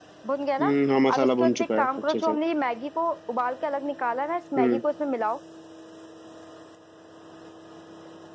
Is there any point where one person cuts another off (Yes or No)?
Yes